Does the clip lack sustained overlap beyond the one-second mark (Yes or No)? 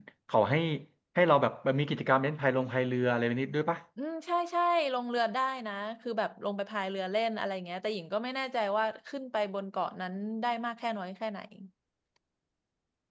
Yes